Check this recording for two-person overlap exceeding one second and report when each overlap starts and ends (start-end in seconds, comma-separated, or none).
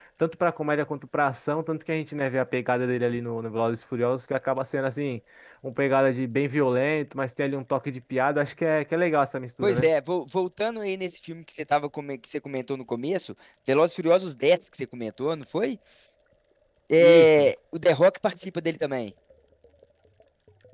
none